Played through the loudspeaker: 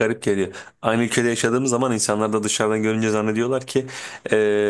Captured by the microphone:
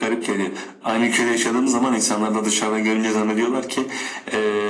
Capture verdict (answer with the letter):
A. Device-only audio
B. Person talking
A